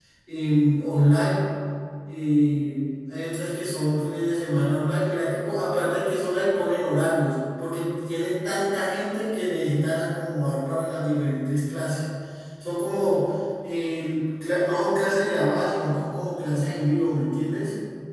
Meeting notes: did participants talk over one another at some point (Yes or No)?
No